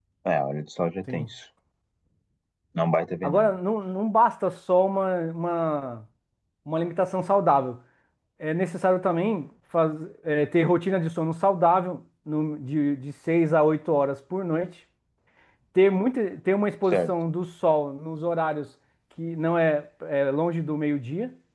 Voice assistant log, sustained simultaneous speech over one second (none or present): none